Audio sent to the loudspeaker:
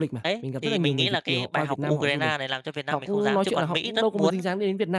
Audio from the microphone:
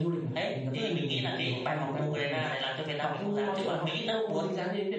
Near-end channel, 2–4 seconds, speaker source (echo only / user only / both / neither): echo only